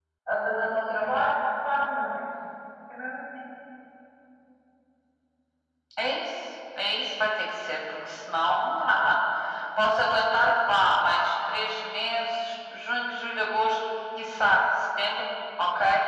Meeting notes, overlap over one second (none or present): none